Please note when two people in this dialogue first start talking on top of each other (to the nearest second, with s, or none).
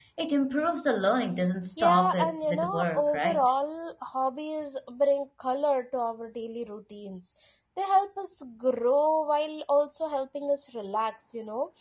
2 s